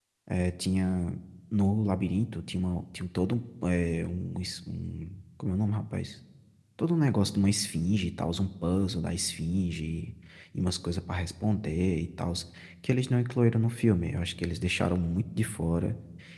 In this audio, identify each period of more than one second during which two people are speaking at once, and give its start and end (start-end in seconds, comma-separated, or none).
none